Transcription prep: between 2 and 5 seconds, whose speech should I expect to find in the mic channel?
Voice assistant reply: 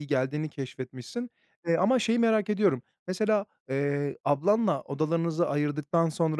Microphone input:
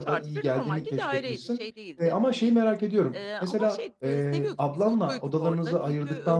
both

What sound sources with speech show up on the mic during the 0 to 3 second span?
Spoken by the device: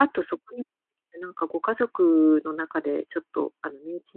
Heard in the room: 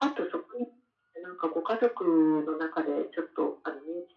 echo only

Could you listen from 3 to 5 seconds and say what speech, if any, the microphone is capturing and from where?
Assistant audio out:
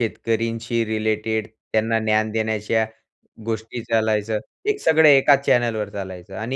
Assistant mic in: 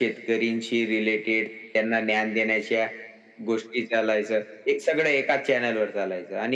echo only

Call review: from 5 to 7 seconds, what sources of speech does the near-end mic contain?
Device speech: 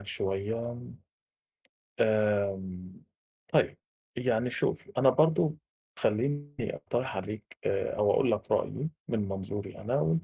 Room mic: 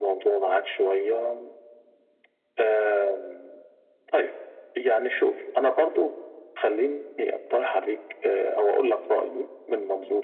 echo only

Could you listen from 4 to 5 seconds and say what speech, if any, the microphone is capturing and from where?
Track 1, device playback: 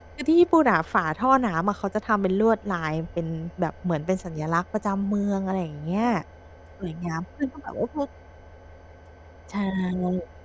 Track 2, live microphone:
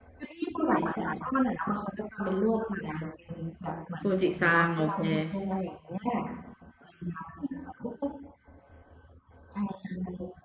both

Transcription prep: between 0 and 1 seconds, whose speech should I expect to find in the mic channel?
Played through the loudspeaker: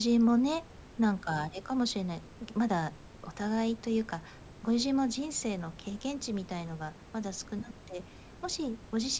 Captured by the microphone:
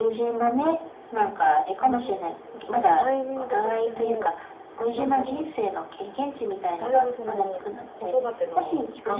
echo only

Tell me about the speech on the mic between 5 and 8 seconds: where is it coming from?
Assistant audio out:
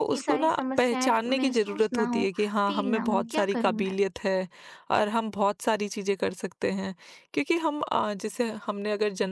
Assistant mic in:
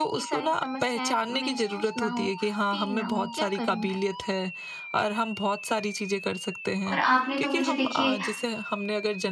both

